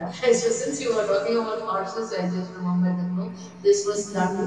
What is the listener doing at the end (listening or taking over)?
taking over